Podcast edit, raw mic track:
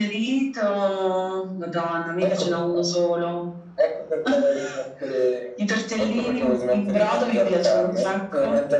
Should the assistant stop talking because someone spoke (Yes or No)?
No